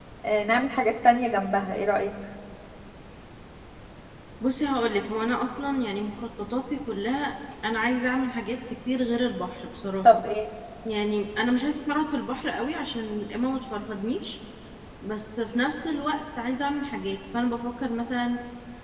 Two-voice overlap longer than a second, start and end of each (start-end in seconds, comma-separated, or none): none